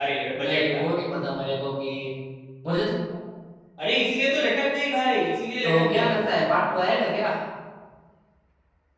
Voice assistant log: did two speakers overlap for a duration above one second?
No

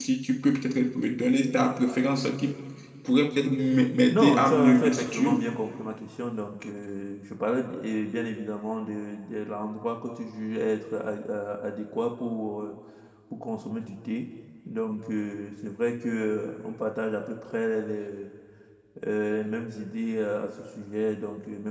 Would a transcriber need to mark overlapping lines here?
Yes, from 4.1 s

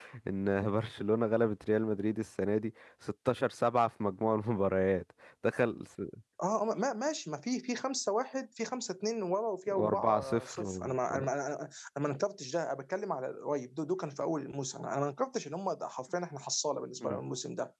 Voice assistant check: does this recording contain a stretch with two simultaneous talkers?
Yes, from 9.7 s

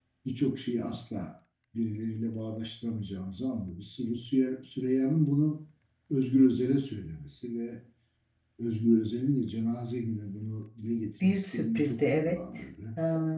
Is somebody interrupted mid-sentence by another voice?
Yes, from 11.2 s

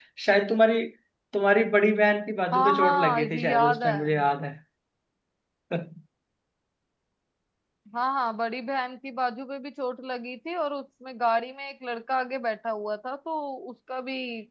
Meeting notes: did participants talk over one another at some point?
Yes, from 2.5 s

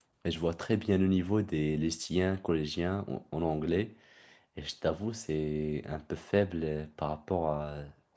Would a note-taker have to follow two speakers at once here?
No

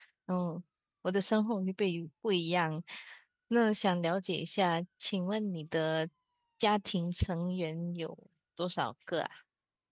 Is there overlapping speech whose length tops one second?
No

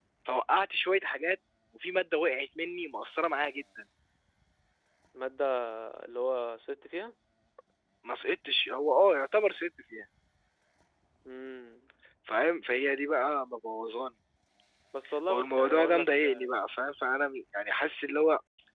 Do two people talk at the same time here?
Yes, from 15.3 s

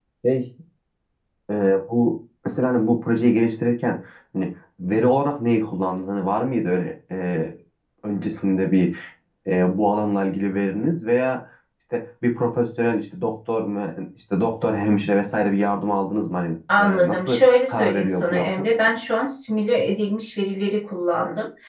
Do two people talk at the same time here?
Yes, from 17.0 s

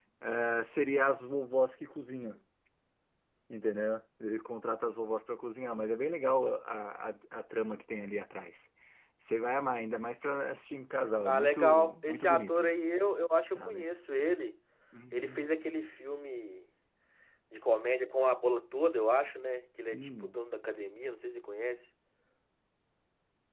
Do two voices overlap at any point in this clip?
Yes, from 11.2 s

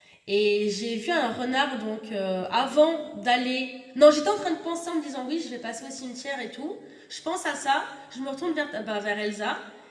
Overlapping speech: No

